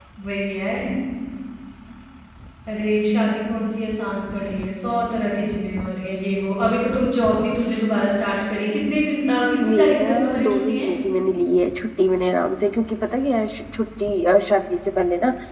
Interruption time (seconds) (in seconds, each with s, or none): 9.6 s